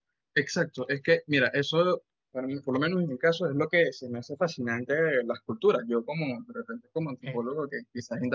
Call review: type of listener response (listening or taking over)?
listening